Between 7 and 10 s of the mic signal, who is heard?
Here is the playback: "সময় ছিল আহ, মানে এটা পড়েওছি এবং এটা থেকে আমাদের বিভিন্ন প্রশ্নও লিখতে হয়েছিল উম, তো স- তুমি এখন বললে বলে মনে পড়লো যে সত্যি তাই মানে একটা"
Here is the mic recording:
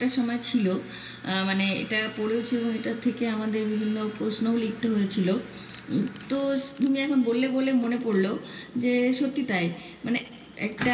echo only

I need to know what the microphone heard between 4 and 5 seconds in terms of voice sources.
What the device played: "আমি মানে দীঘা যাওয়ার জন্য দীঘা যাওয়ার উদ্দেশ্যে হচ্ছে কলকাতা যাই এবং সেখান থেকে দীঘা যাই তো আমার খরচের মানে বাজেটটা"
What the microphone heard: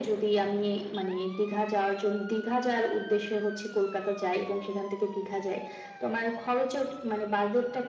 echo only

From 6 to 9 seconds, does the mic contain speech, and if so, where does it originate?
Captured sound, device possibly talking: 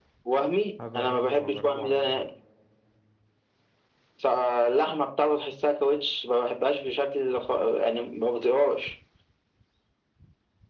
echo only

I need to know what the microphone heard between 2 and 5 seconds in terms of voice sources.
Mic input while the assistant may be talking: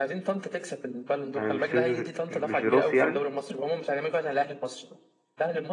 both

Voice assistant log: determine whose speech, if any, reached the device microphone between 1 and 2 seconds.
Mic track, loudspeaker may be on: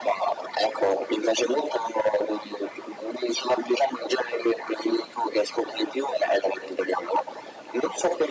echo only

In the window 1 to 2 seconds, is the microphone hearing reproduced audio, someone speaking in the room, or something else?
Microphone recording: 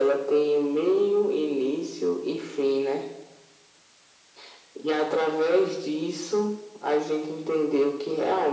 echo only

